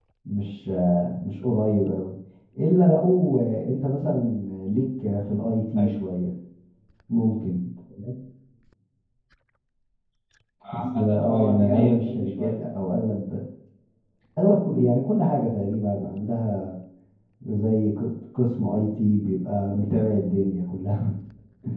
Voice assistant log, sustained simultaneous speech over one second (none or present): present